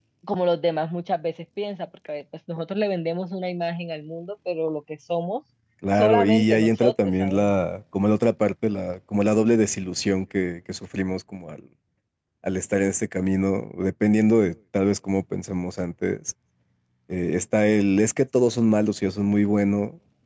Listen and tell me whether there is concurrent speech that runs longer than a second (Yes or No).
Yes